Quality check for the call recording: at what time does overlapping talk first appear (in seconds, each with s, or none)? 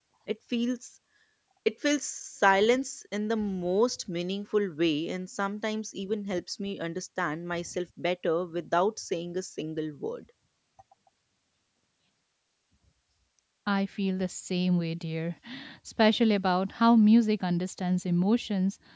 none